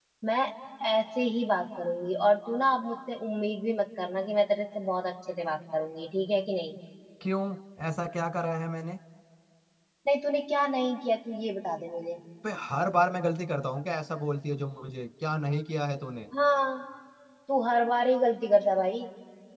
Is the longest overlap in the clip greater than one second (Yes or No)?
No